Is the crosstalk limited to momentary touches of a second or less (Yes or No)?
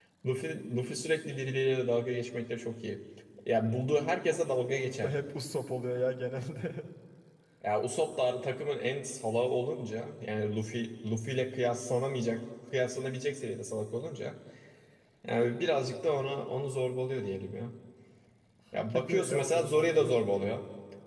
No